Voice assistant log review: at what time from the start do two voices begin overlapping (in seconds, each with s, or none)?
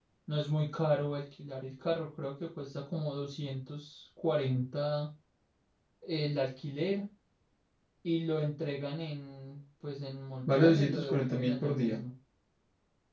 10.5 s